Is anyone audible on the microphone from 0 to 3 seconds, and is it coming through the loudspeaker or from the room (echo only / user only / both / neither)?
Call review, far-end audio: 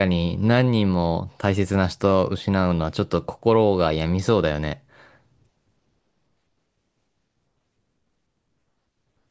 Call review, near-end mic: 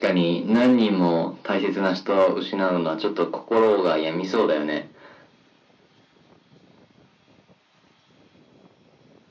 echo only